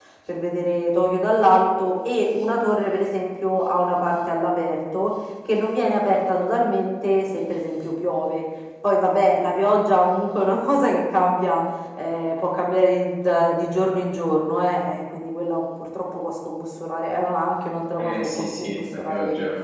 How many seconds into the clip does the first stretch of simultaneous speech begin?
18.0 s

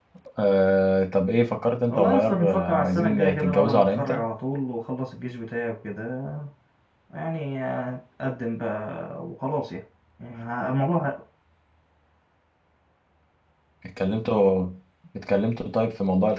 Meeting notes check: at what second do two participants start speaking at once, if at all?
1.9 s

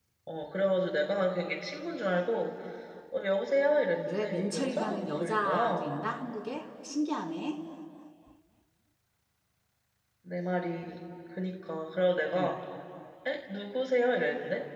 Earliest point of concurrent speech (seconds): 4.1 s

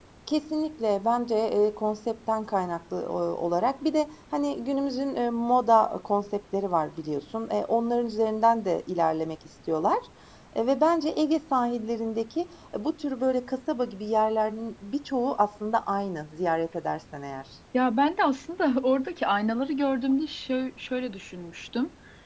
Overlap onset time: none

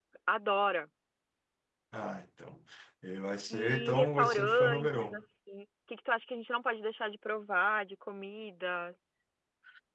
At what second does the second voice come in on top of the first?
3.5 s

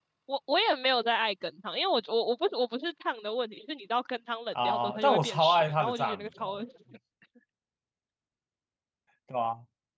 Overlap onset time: 4.5 s

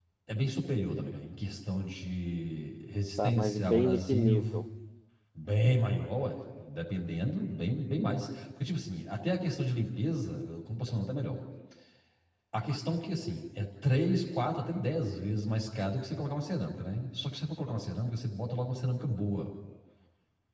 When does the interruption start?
3.2 s

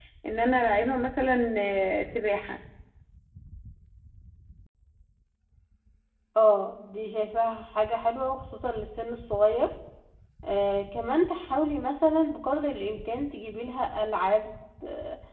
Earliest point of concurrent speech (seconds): none

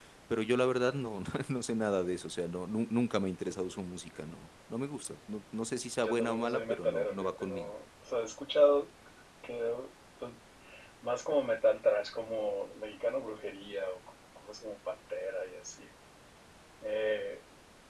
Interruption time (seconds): 6.0 s

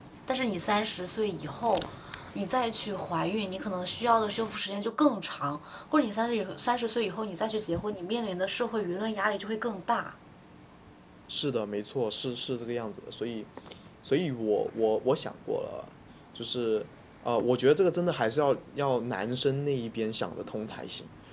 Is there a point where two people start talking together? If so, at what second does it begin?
none

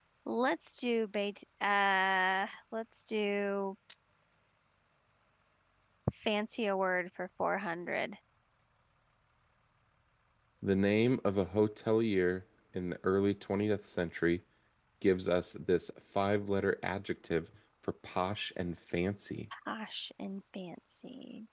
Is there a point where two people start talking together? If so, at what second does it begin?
none

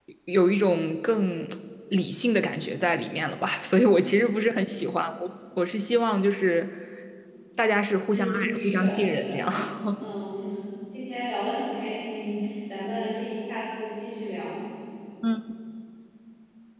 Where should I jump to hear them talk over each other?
8.1 s

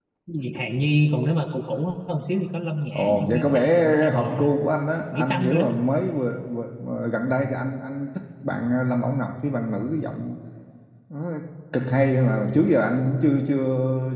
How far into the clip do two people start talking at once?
3.0 s

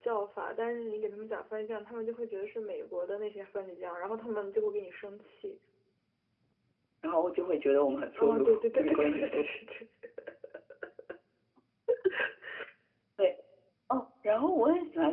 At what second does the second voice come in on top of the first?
8.2 s

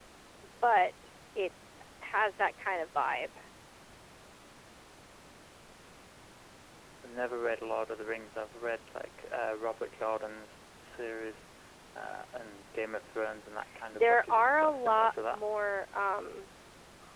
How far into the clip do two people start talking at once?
13.9 s

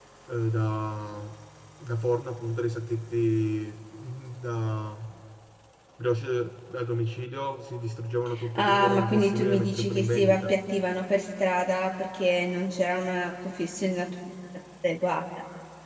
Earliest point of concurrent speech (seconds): 8.4 s

